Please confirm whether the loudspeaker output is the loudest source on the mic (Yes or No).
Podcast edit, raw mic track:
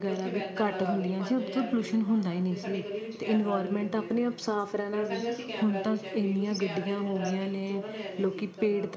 Yes